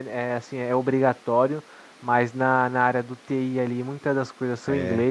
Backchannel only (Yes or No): Yes